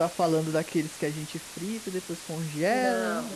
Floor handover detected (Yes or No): Yes